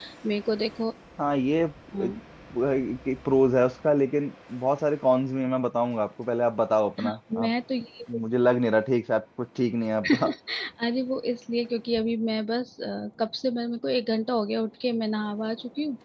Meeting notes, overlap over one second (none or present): none